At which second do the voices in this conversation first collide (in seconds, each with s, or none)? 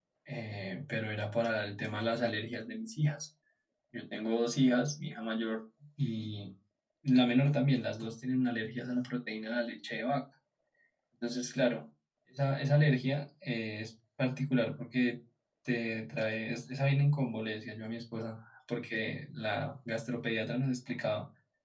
none